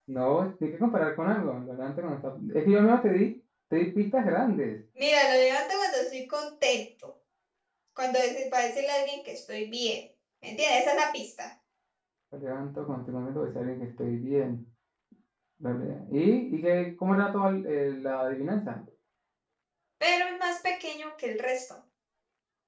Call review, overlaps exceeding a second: none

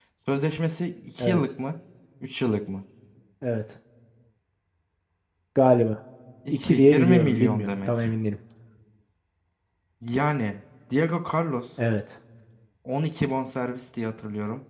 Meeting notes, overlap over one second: present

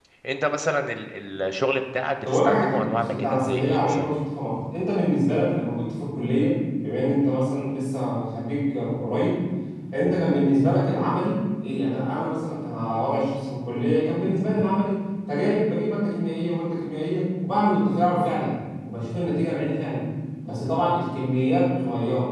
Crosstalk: present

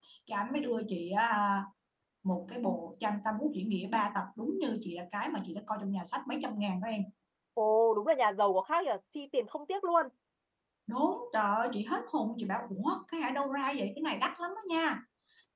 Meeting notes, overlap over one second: none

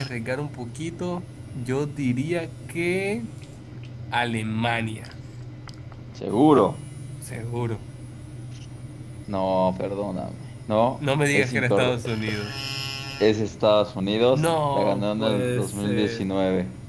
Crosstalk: present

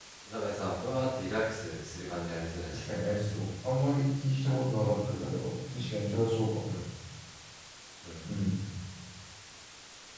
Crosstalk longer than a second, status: none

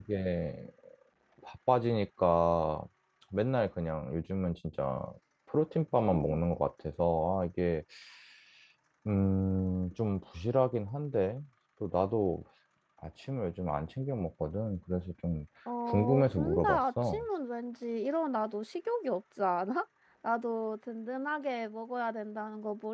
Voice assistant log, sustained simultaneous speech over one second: present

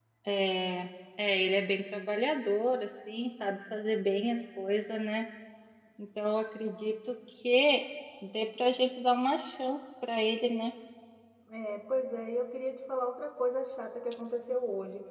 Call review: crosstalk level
none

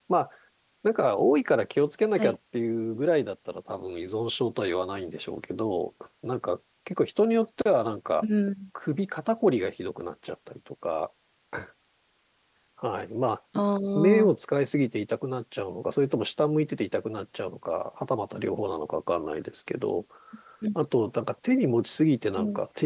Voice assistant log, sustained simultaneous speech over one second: none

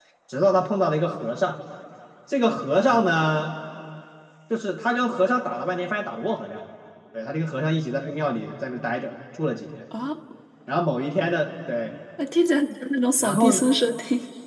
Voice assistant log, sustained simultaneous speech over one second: none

